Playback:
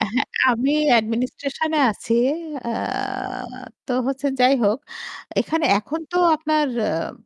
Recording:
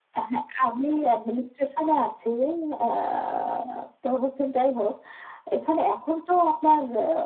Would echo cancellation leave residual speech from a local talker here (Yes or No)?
No